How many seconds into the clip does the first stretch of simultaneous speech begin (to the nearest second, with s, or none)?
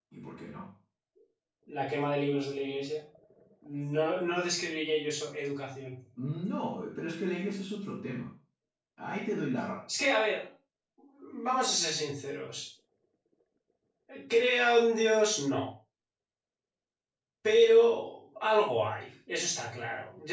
none